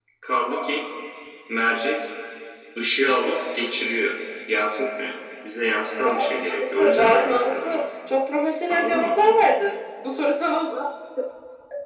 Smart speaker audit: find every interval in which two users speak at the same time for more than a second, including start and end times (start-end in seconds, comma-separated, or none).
6.0-7.8